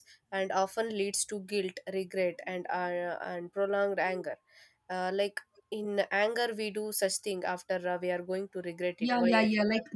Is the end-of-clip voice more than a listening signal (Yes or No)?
Yes